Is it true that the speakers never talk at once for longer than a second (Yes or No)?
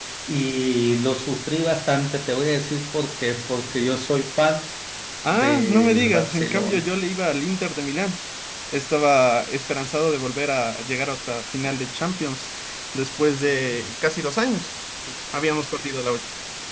No